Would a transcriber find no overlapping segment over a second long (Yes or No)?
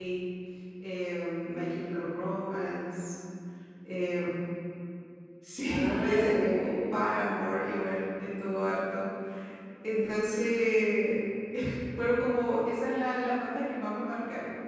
No